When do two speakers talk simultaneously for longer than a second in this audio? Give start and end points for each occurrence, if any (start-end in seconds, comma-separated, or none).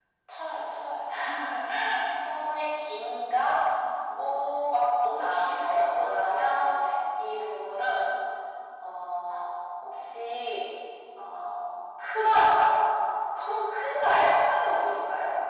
5.2-6.6